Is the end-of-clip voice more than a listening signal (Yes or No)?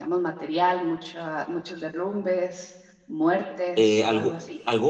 Yes